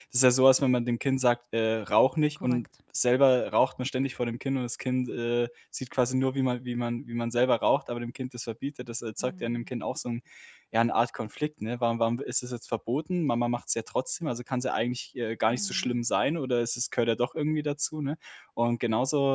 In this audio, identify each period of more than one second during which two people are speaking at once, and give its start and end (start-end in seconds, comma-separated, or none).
none